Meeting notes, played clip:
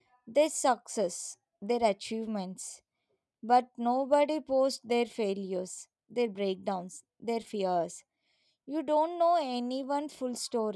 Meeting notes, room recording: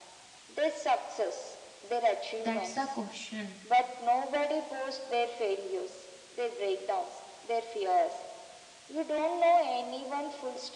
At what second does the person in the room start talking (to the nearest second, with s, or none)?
2 s